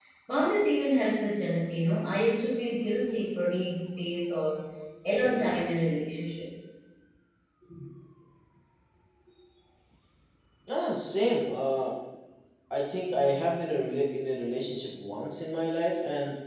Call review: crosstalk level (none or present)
none